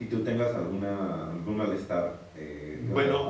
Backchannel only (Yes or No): No